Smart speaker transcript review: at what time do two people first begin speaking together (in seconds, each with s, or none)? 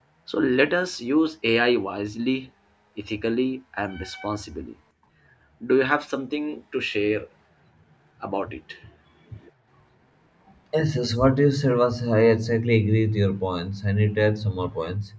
none